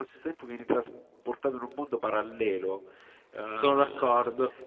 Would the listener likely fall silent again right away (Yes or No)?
Yes